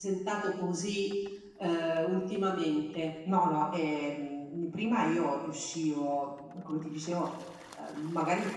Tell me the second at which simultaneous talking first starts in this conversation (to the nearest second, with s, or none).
none